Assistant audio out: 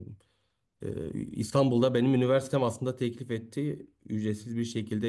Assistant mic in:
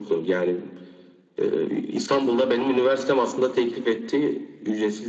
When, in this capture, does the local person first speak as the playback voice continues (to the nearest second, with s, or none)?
none